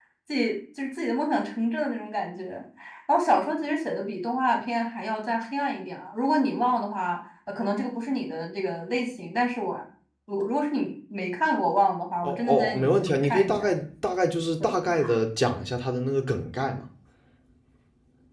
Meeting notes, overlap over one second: present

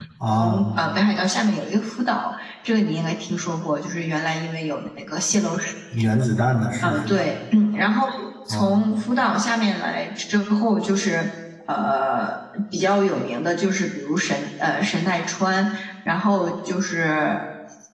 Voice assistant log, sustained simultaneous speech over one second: none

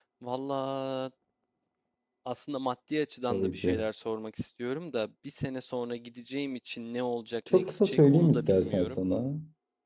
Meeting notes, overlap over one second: present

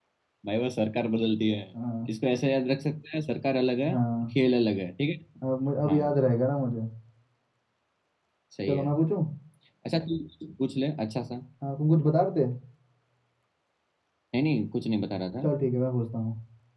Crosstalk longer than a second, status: none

